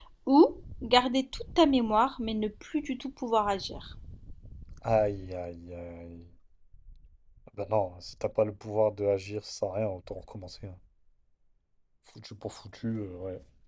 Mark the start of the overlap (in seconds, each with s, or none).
none